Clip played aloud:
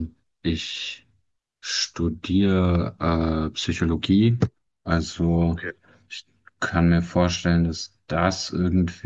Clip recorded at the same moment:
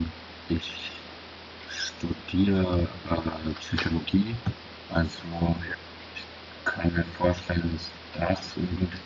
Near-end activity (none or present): none